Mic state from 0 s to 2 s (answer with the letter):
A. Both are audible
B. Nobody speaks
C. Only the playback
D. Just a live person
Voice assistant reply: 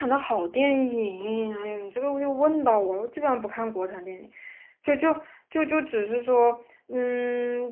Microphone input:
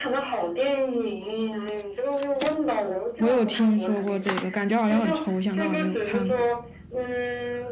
C